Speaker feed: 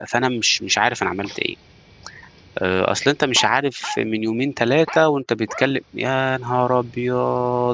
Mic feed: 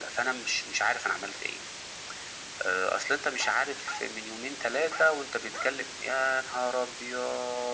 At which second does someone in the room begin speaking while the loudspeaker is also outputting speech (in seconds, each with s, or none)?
none